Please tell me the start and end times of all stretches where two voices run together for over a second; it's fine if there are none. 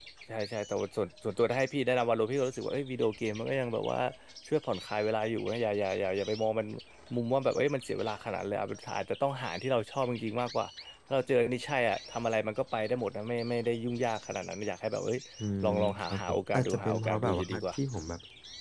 15.6-17.8

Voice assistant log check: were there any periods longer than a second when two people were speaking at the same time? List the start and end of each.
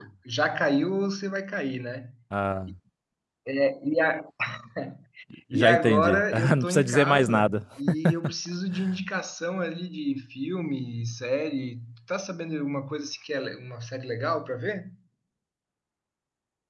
5.5-7.6

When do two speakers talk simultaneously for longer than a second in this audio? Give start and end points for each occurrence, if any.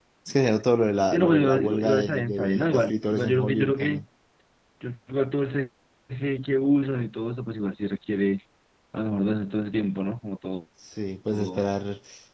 1.1-4.0

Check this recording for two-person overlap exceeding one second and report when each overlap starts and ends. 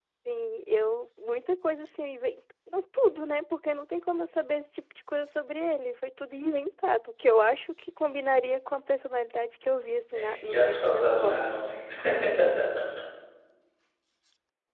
10.1-11.5

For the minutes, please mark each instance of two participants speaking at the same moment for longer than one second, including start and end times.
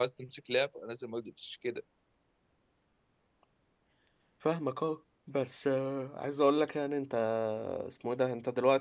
none

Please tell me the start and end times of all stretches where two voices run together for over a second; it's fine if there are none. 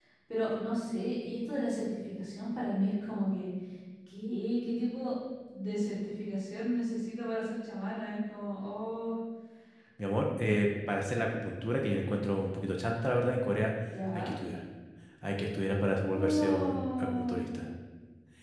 16.1-17.4

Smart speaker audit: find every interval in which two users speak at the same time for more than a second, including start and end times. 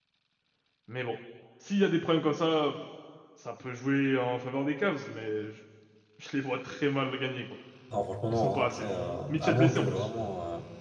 8.3-10.1

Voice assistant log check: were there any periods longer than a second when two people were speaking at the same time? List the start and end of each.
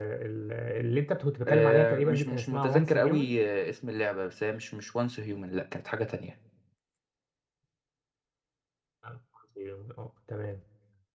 1.5-3.4

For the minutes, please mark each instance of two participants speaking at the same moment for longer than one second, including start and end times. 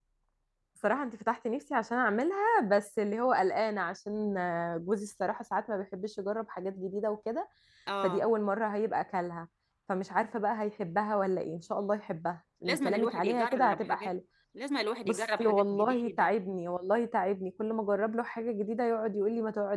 12.6-14.1, 15.0-16.3

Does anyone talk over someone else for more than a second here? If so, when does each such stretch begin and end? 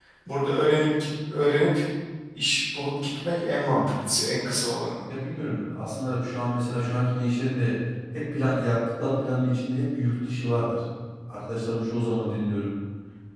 none

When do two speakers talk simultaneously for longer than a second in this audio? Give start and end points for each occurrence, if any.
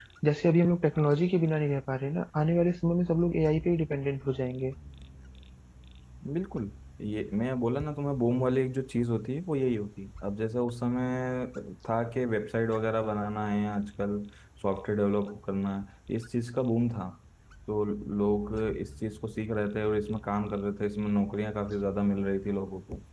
none

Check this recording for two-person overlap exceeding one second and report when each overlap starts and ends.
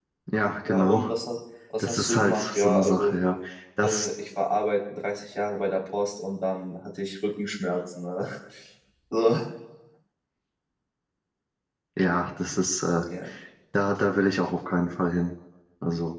1.8-3.1

